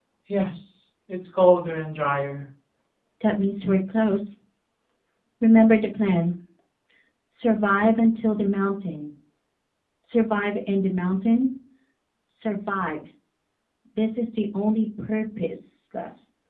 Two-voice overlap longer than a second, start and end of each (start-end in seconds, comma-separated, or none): none